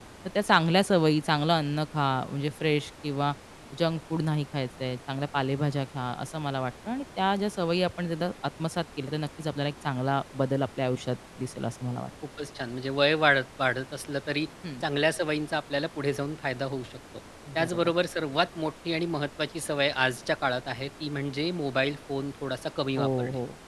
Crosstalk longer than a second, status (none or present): none